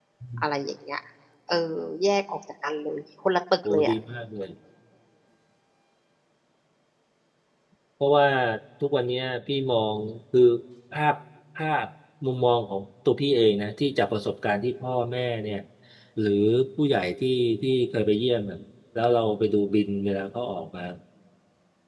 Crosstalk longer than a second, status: none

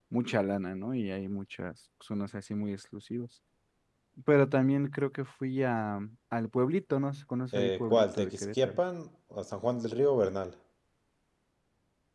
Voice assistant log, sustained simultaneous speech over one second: present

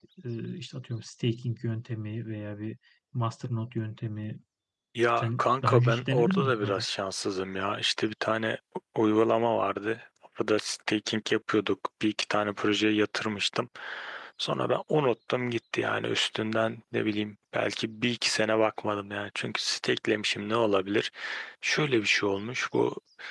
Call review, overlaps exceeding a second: present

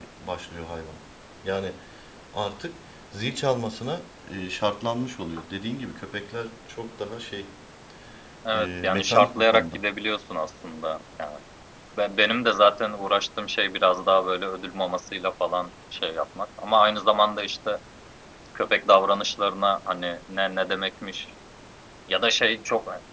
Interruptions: present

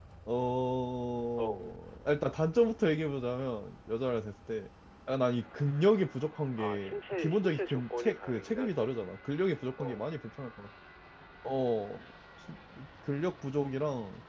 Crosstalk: present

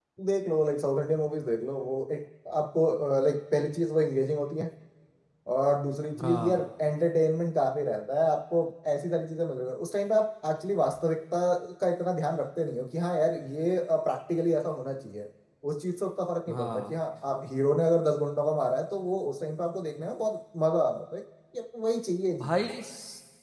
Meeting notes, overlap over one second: none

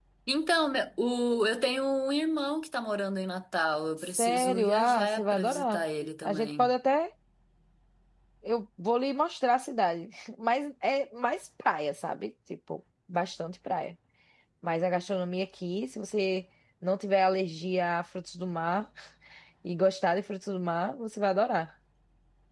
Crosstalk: present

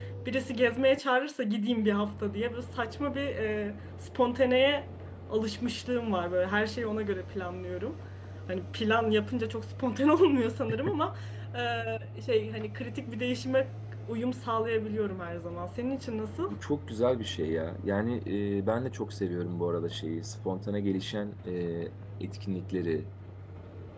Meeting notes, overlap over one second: none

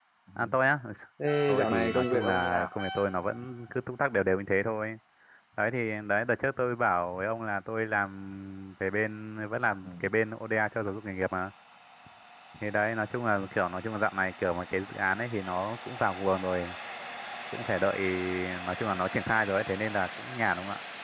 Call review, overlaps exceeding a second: present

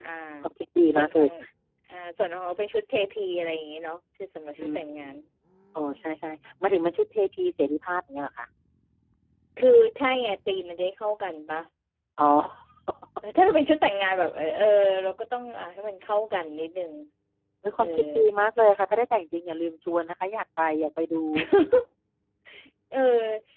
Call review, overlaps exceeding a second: none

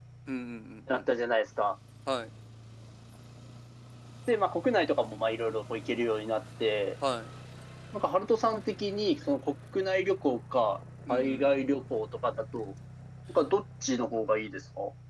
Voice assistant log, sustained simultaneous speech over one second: none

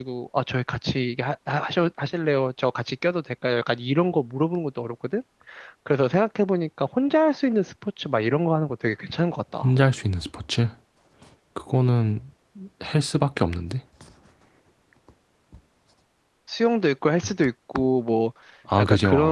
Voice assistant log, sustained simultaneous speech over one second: none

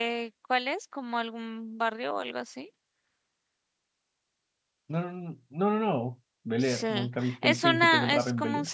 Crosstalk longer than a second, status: present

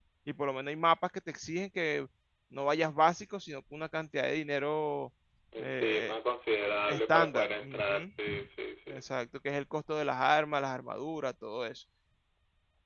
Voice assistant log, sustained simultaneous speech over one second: present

